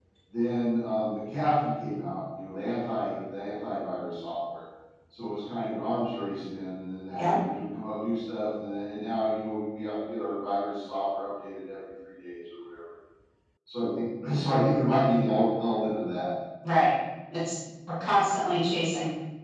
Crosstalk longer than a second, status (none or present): none